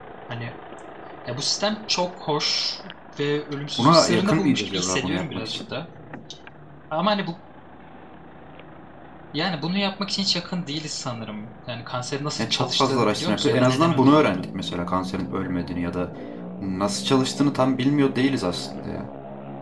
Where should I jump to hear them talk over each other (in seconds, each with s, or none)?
3.8 s